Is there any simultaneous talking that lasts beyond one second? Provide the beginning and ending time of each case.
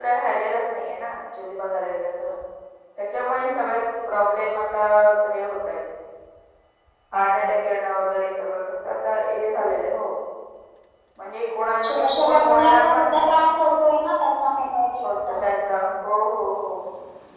11.8-13.3

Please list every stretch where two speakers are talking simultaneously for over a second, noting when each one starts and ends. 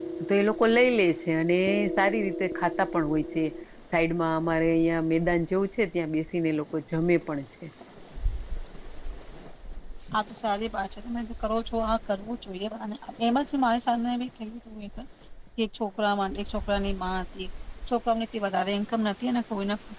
none

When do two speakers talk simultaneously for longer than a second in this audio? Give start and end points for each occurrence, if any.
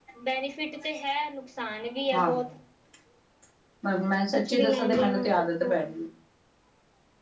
4.3-5.7

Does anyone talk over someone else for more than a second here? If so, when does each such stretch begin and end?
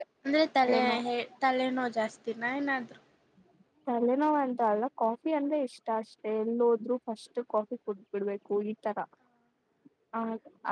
none

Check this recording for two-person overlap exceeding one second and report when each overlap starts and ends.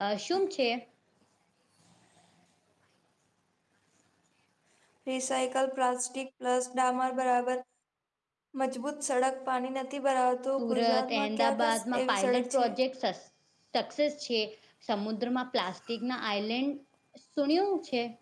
10.6-12.7

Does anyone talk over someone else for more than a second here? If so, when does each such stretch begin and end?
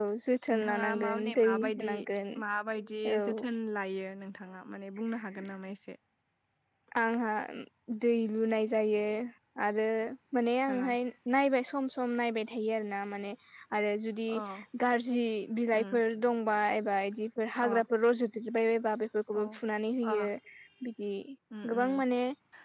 0.5-1.9

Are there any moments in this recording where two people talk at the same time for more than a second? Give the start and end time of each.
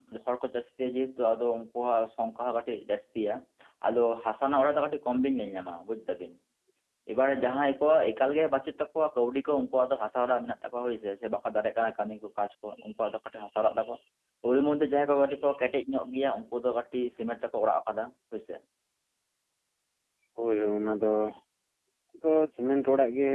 none

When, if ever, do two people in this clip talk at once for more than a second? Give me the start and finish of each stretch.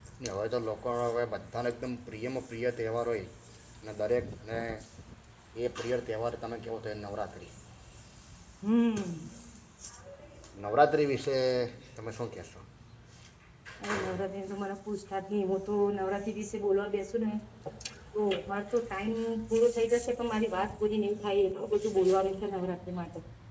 none

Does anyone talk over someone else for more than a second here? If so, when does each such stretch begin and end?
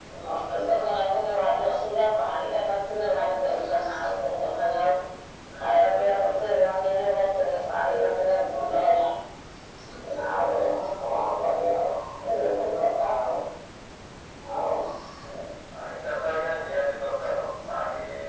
none

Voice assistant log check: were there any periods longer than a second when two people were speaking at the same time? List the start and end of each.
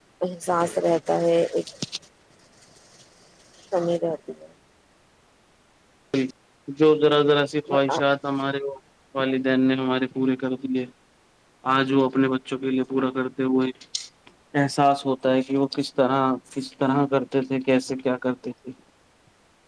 none

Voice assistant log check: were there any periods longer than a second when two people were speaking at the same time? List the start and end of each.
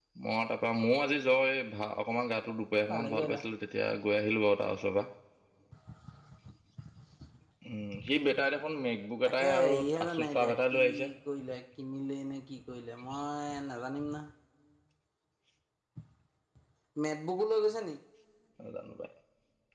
9.2-10.8

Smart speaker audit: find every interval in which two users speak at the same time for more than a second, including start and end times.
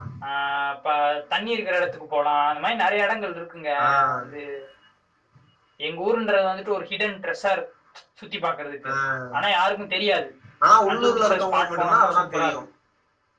10.9-12.6

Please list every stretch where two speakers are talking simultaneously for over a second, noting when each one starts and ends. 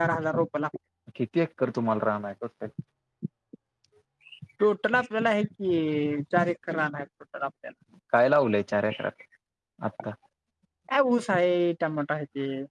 none

